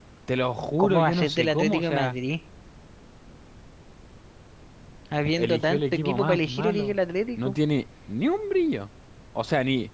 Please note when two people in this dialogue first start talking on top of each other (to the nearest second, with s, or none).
1 s